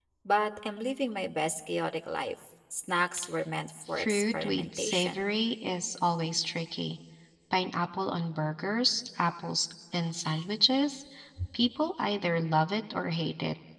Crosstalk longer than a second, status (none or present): present